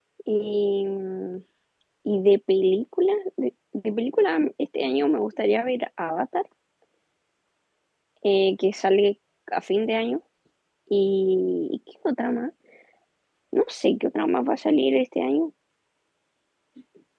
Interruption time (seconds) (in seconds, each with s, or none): none